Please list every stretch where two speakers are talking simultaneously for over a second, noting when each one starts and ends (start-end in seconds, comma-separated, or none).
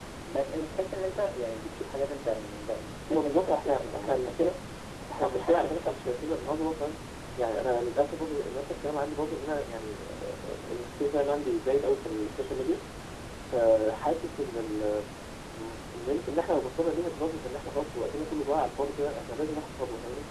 3.1-4.5, 5.2-6.6